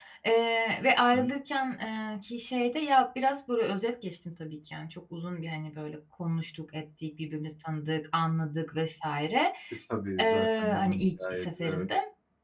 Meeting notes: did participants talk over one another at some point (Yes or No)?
Yes